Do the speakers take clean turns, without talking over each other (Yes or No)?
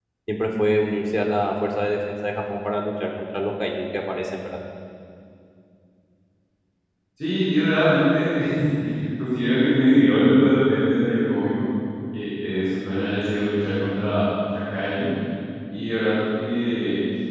Yes